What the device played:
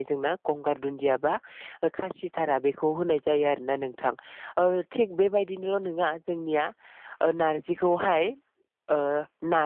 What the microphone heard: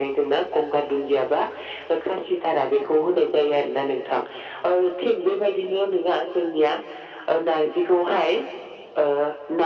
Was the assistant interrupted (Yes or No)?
No